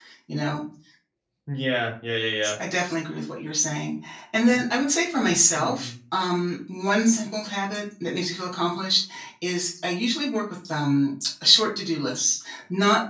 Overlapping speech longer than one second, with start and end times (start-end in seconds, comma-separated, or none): none